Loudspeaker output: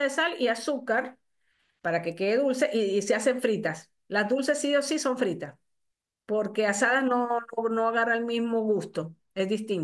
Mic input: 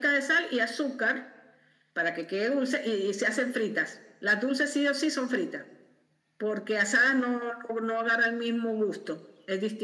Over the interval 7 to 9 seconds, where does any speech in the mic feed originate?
echo only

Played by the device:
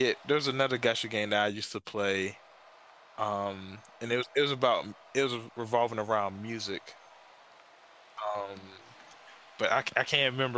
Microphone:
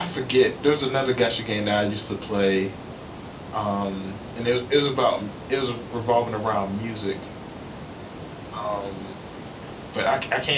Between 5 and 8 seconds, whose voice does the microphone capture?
echo only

